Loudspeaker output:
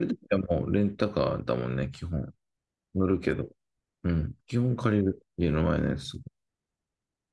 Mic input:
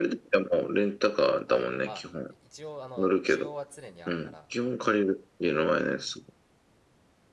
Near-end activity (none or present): present